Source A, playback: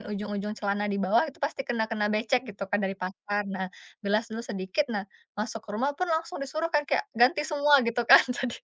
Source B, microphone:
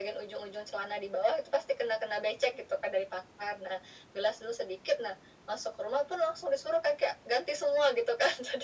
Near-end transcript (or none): none